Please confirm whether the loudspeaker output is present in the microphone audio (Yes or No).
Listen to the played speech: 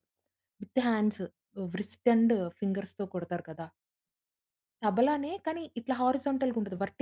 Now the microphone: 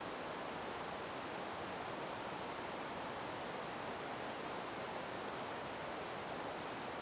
No